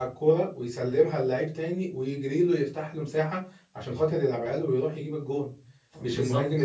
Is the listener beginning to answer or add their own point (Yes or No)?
No